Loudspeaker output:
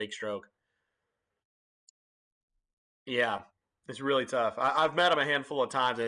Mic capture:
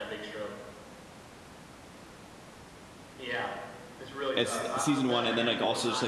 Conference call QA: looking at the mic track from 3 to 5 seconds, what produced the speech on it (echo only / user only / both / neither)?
both